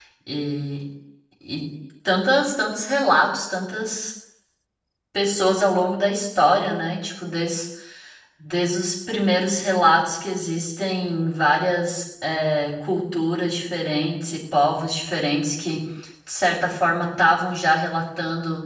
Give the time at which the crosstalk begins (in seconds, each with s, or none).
none